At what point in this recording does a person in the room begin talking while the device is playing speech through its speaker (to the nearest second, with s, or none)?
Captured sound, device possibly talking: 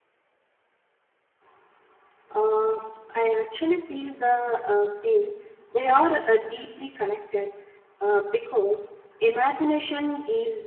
none